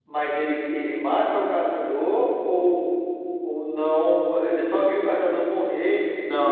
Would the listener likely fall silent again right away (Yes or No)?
No